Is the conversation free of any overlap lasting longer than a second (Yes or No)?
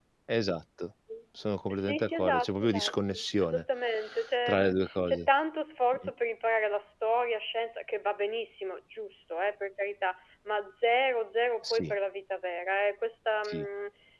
No